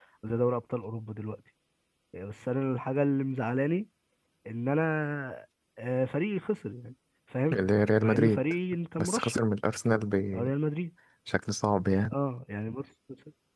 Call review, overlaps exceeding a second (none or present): none